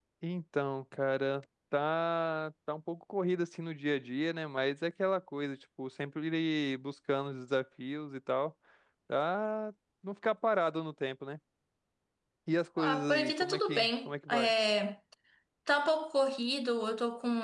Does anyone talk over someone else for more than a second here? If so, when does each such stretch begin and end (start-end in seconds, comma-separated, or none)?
12.8-14.5